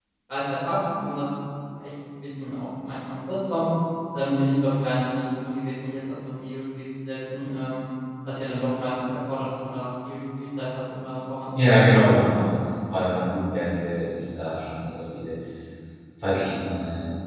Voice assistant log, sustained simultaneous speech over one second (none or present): none